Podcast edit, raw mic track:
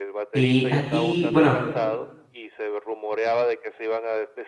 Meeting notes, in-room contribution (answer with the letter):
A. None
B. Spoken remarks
B